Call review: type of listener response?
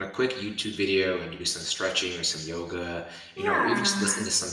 listening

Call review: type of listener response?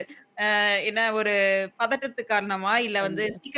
listening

